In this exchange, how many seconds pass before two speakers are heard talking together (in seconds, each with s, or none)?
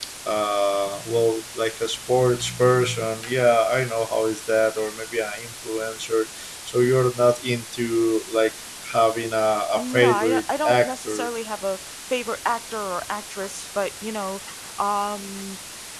9.8 s